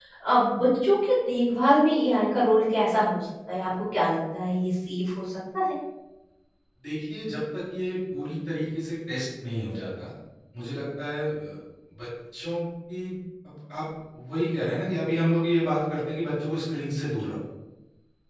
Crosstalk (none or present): none